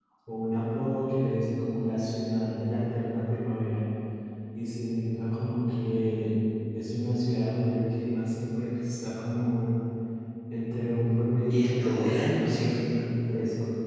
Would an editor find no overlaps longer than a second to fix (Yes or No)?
No